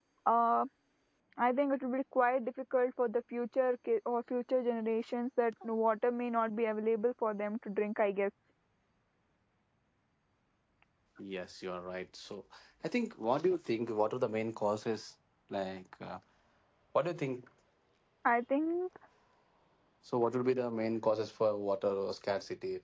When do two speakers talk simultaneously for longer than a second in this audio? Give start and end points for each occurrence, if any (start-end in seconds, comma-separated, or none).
none